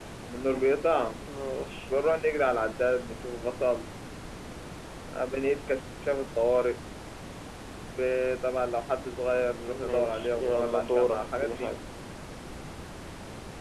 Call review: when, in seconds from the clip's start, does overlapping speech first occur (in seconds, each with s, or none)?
9.6 s